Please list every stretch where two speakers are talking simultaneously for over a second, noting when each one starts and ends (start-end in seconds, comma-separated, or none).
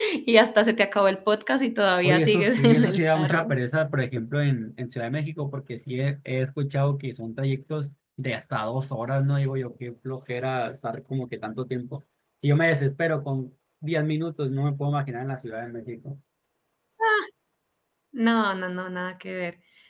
2.0-3.5